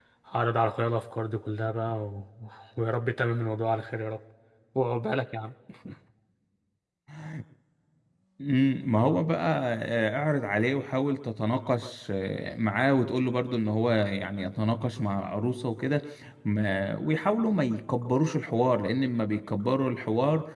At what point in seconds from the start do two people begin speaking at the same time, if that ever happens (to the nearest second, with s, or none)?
none